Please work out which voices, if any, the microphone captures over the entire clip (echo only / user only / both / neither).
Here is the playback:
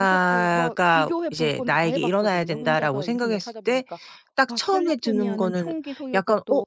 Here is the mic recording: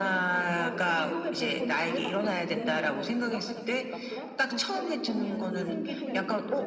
both